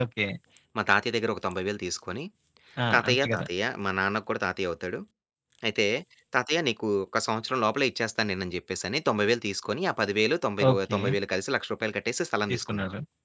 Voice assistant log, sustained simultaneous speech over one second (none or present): none